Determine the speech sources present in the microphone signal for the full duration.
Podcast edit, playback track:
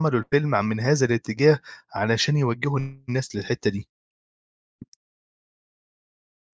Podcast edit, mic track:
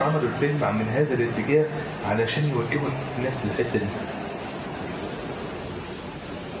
echo only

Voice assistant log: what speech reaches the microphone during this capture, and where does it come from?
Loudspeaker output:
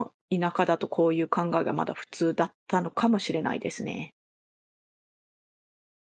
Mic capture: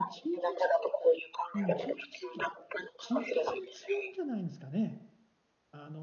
both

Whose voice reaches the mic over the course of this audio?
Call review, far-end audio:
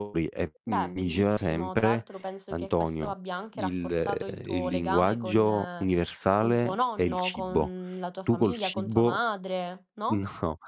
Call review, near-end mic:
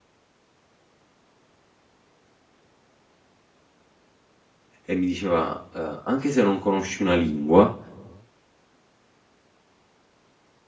user only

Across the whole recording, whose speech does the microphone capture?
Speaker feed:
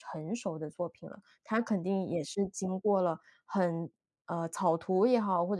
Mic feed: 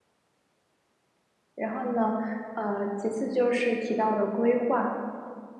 user only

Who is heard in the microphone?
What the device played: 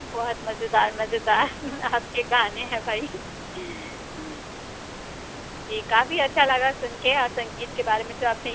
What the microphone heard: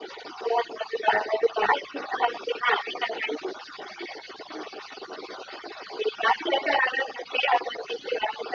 echo only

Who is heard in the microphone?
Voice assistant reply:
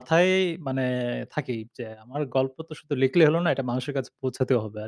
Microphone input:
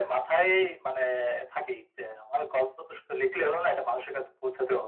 echo only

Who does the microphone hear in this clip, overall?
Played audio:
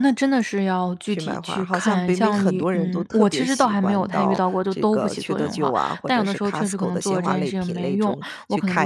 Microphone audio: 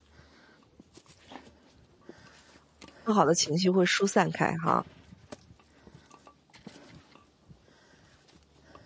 user only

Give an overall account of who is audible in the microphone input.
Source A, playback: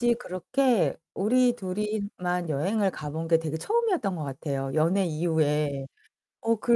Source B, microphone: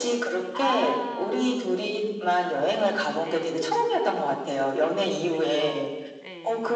both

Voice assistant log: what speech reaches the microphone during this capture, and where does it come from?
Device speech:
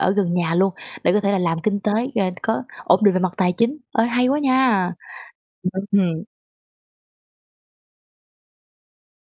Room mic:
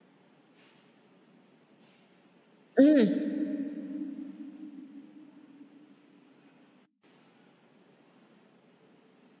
user only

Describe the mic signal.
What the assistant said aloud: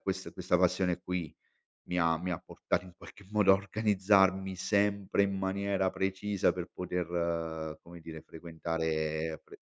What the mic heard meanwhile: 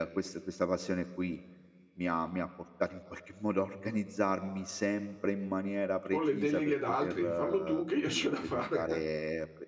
both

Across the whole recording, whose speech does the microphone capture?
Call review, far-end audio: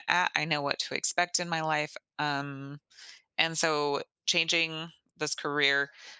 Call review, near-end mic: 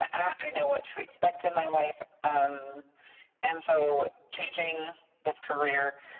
echo only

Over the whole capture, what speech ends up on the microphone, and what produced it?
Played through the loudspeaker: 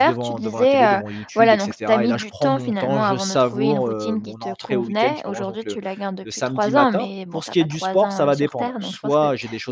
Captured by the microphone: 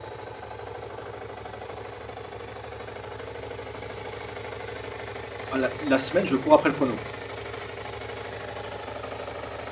user only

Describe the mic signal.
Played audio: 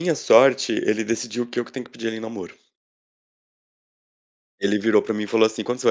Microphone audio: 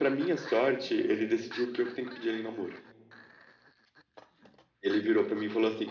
echo only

